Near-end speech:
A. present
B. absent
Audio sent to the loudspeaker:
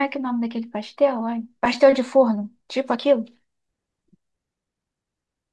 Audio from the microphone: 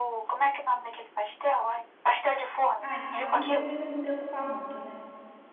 A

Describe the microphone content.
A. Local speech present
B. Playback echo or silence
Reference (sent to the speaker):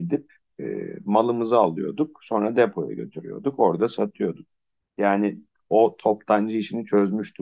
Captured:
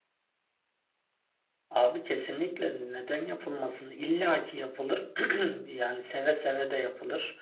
A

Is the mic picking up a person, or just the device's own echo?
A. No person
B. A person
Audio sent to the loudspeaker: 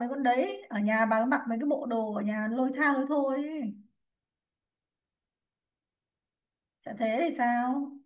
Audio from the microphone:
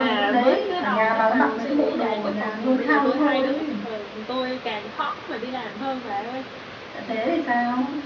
B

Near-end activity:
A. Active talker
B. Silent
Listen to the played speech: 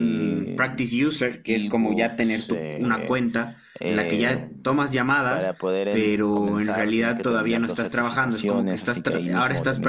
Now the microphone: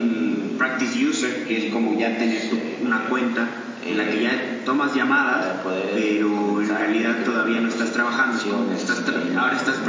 B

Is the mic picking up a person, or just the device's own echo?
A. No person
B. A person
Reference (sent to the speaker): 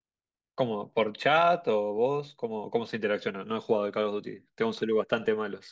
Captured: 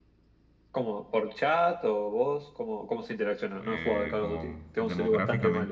B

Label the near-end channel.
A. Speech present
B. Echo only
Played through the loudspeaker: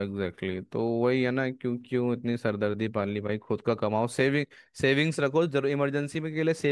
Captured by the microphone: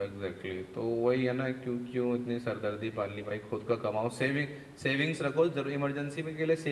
B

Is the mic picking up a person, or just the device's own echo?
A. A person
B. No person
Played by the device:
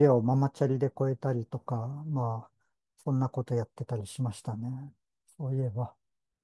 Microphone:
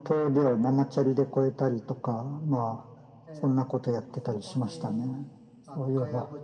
A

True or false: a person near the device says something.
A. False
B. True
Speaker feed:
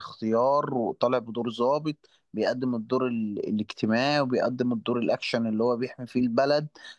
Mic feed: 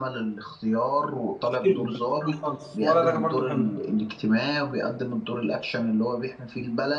B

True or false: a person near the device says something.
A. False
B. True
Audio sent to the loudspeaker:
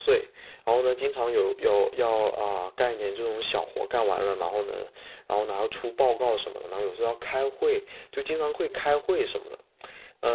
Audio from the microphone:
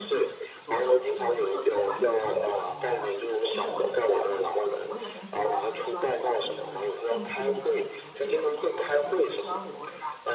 B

